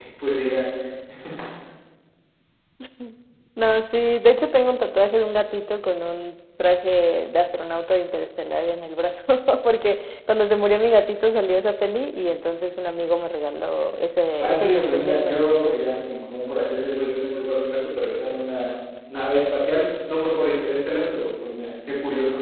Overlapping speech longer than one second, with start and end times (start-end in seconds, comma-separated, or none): 14.4-15.8